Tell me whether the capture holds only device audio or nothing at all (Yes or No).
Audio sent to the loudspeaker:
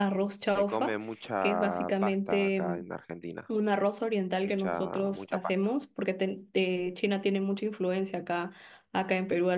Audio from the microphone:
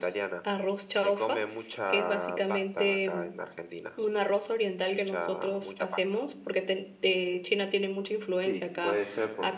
No